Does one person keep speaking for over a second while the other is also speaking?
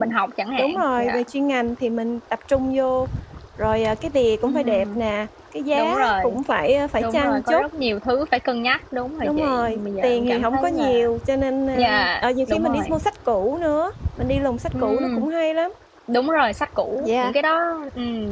Yes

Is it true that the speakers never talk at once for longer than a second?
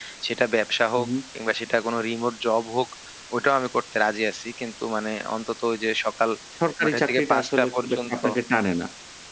No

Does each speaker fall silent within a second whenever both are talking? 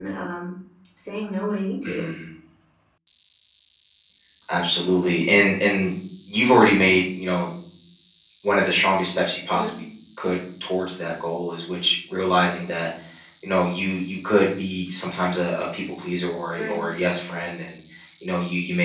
Yes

